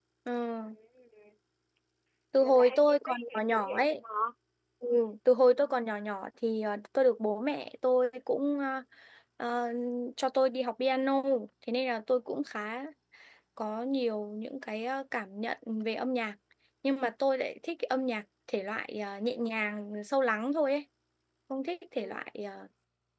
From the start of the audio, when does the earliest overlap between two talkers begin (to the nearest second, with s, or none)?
2 s